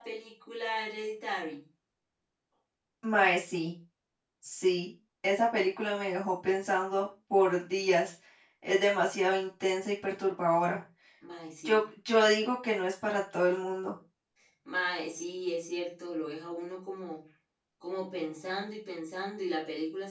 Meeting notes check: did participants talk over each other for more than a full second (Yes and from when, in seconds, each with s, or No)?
No